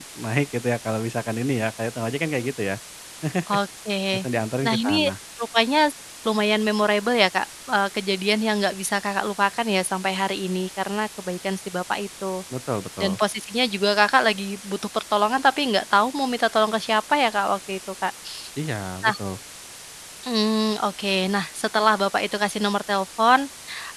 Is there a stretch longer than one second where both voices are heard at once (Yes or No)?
No